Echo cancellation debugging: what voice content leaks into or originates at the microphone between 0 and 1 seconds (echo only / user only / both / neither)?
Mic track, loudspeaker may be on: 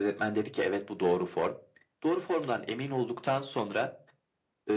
echo only